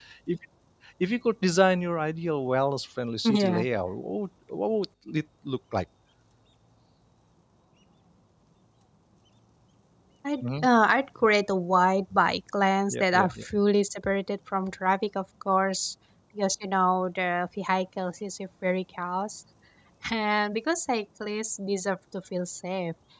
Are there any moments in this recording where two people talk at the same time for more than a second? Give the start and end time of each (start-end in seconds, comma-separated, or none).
none